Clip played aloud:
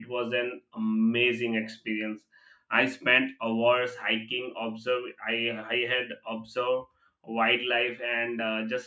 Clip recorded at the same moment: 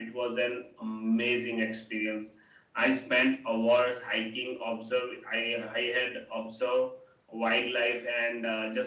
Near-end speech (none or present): none